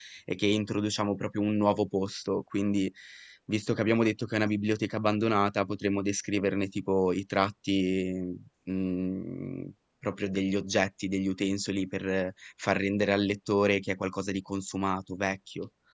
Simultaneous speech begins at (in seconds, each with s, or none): none